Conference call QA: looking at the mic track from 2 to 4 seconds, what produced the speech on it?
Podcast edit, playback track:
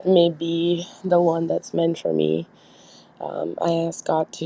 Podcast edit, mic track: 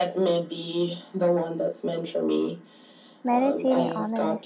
both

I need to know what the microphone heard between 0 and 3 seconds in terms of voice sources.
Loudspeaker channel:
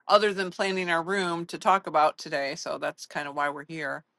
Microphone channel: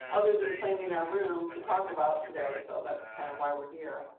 both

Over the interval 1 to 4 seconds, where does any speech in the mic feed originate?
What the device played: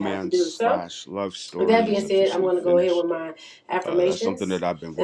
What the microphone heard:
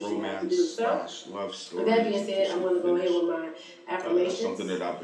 echo only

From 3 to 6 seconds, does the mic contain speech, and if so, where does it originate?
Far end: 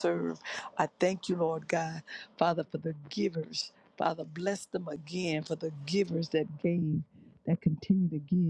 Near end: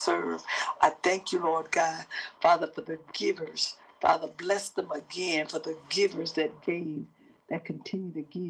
echo only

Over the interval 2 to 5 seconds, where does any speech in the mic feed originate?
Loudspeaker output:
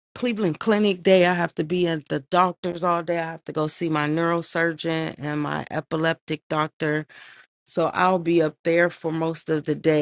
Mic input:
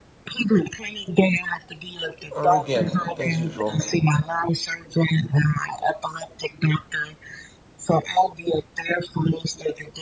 both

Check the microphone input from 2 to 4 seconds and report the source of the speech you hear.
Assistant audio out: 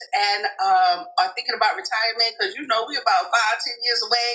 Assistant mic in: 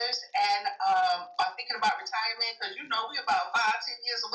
echo only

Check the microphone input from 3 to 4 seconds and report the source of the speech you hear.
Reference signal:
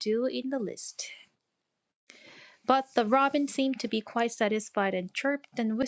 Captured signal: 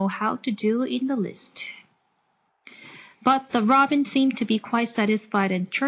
echo only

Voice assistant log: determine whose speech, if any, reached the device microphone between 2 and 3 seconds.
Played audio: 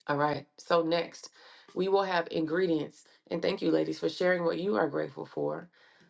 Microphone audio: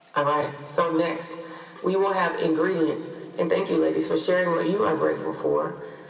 echo only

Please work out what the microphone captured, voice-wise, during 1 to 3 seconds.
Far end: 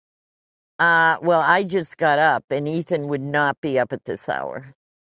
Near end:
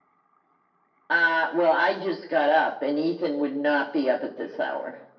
echo only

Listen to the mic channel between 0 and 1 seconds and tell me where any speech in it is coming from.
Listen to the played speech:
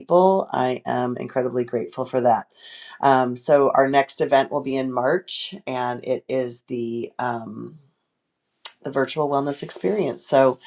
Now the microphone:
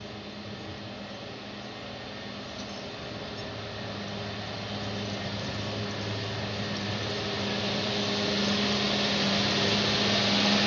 neither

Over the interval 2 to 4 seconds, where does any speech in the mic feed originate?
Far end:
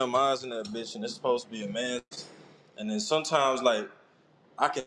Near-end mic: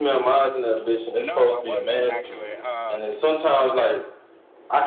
both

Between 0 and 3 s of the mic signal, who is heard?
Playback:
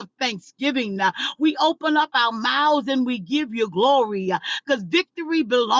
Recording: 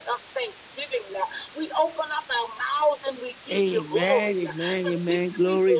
echo only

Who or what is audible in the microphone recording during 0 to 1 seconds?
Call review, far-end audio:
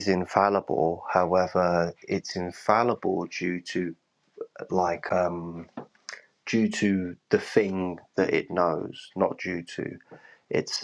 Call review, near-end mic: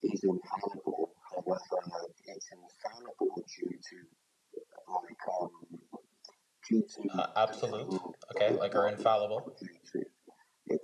echo only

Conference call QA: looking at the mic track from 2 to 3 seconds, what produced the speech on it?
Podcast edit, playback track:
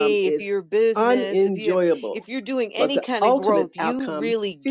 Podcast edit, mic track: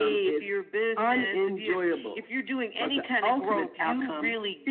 echo only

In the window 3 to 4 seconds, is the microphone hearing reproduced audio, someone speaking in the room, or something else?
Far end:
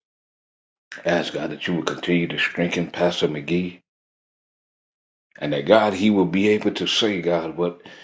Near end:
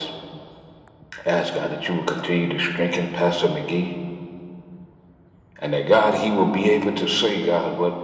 echo only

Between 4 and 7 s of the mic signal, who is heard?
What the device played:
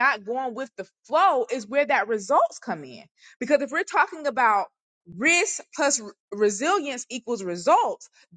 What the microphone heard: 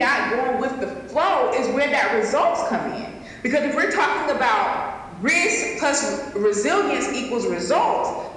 echo only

